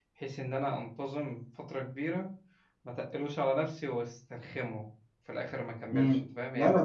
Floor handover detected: Yes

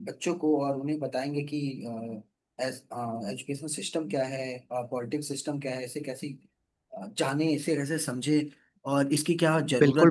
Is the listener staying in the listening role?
No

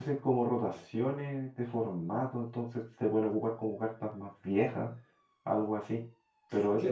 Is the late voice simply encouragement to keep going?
Yes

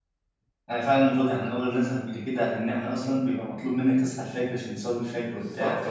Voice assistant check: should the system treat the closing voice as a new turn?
Yes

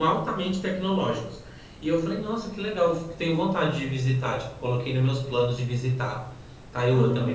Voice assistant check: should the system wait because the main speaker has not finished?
No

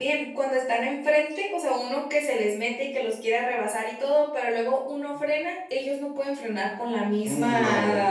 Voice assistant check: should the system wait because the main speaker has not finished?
Yes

